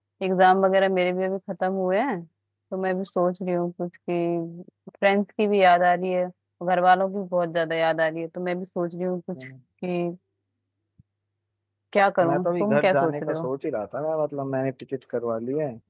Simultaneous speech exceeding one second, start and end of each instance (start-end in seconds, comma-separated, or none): 12.2-13.5